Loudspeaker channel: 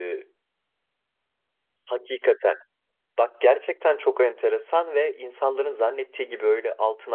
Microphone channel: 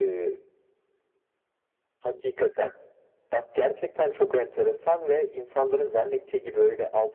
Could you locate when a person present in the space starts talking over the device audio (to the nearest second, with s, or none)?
none